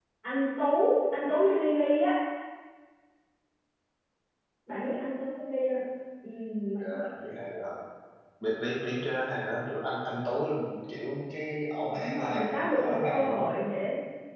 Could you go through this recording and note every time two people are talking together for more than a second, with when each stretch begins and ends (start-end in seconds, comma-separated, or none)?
11.9-13.5